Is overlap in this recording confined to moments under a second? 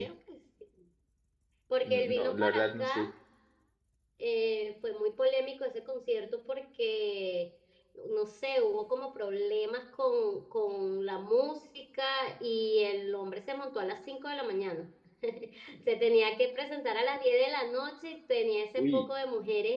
No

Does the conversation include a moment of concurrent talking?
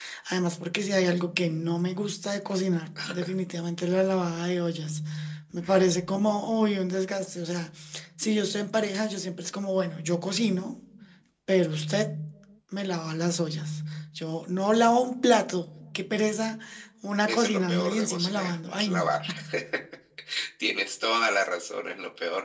Yes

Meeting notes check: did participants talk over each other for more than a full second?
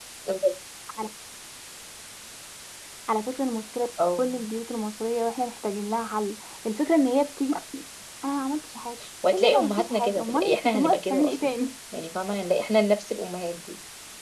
Yes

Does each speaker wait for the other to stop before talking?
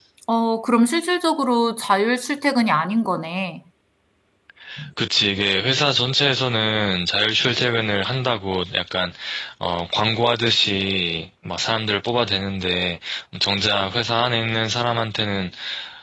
Yes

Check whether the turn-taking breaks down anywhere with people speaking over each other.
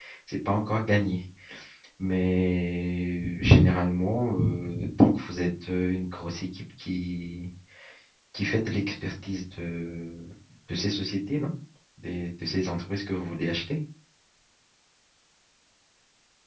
No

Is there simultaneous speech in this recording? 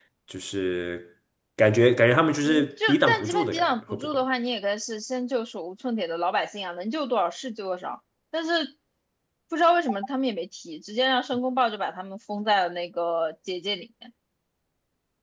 Yes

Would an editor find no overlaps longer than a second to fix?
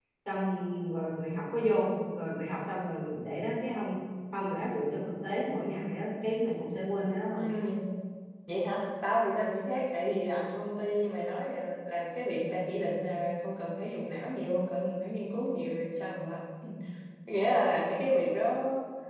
Yes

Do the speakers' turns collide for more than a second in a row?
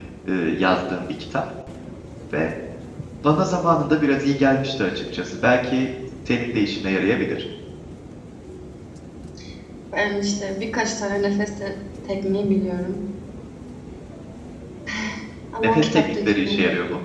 Yes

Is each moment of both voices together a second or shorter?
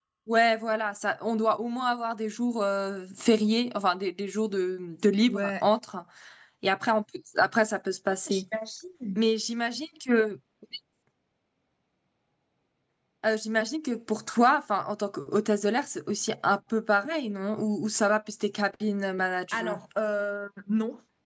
Yes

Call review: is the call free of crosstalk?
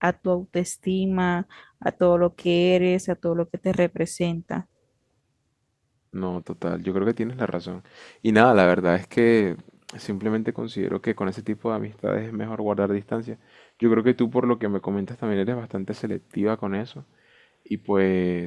Yes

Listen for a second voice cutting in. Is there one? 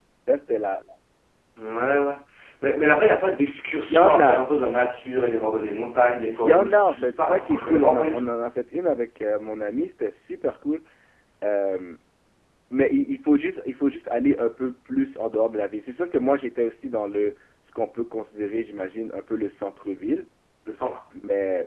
Yes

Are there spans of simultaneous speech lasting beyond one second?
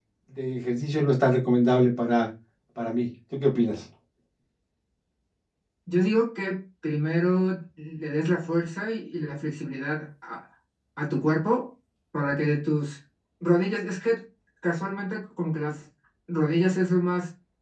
No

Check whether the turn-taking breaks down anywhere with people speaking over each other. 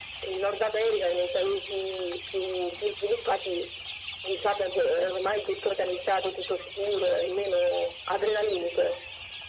No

